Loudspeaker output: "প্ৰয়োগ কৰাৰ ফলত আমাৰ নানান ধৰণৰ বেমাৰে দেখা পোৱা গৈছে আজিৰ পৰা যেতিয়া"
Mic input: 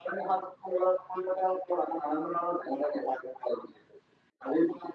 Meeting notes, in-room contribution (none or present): none